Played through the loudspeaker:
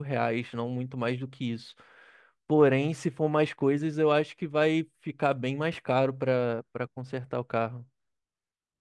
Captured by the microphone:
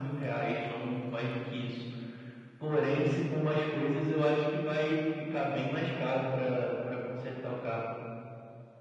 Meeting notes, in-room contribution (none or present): none